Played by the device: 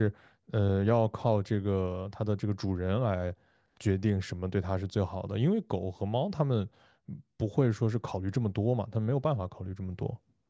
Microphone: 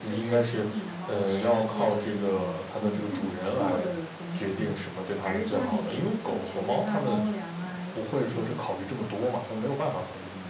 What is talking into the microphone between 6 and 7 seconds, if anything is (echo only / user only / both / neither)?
both